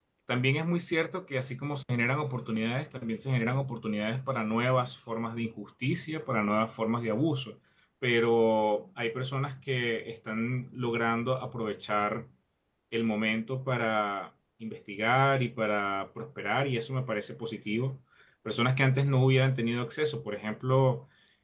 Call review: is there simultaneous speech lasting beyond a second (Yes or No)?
No